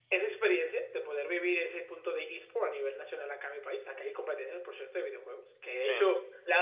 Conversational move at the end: listening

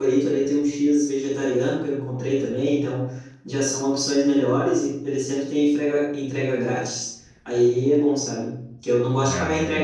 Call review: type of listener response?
listening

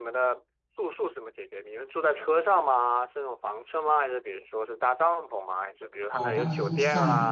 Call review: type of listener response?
taking over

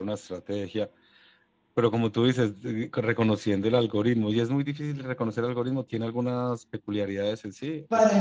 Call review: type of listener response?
taking over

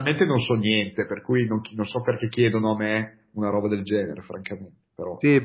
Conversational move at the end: taking over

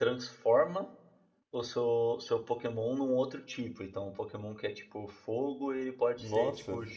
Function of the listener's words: listening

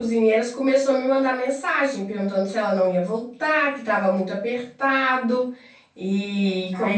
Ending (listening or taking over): taking over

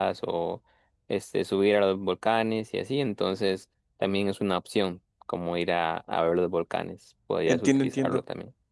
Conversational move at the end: taking over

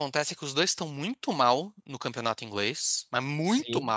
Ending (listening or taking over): listening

